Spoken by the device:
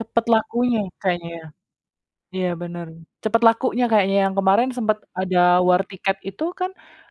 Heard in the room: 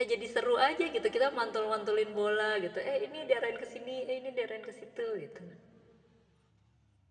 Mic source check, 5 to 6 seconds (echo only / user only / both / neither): user only